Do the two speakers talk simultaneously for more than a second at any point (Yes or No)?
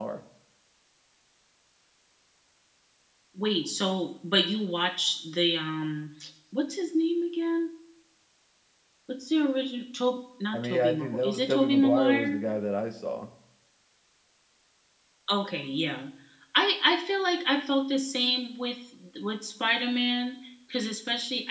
Yes